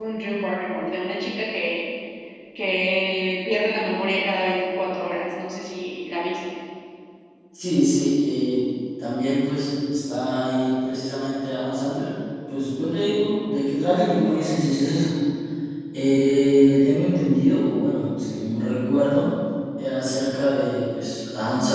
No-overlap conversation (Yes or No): Yes